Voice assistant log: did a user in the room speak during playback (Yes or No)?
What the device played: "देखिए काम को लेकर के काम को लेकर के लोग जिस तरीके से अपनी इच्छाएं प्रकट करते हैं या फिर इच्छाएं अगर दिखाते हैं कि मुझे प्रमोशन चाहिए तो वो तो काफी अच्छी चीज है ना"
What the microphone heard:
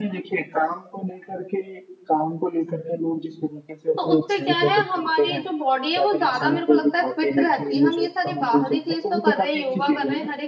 Yes